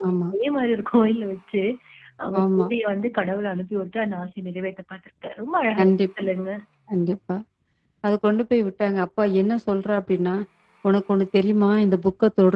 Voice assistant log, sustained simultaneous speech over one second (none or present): none